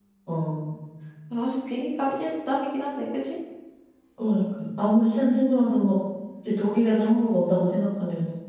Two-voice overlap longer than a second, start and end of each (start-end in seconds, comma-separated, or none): none